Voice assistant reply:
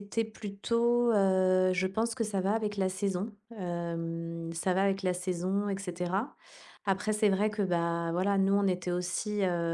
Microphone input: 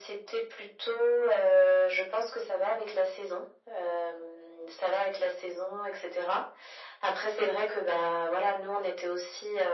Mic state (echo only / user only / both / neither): echo only